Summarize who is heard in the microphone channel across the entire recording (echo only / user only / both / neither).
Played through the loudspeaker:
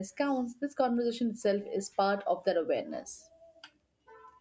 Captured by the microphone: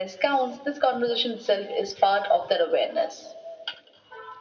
echo only